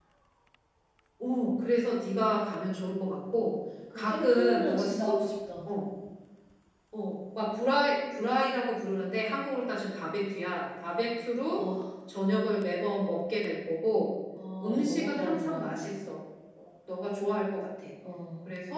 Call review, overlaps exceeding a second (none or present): present